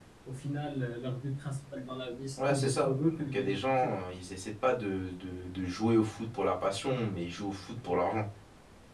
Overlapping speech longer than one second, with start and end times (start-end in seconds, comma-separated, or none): 2.5-3.9